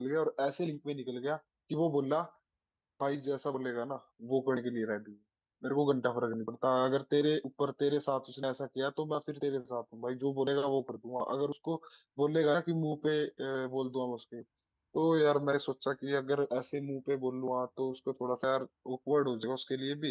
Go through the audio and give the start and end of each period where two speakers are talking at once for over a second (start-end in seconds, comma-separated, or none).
none